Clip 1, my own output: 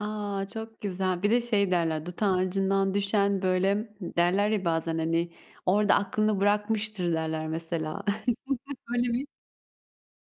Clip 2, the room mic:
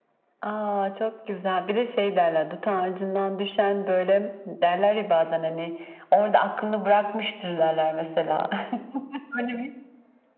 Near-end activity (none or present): none